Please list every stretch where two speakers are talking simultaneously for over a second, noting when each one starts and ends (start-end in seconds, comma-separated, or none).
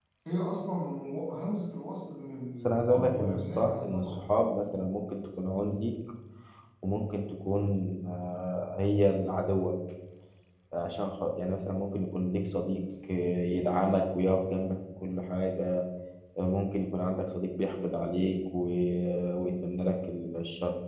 2.6-4.2